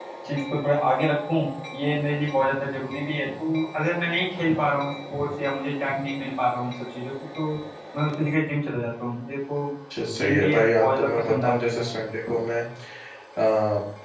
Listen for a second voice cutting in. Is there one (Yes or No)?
Yes